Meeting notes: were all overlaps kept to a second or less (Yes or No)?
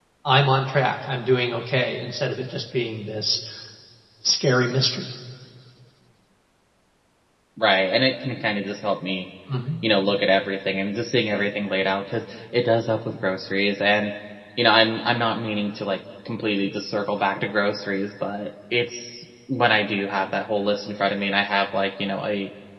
Yes